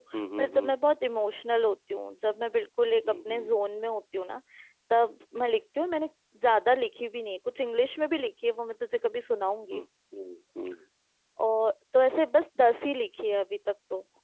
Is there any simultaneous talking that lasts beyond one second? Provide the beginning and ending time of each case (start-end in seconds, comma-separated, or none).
none